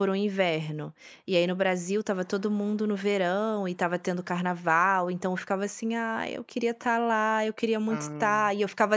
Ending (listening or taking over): listening